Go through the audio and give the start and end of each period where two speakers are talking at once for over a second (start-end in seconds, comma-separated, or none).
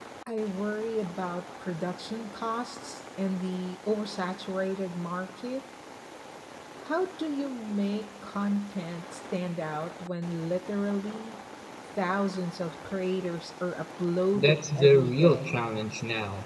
14.3-15.7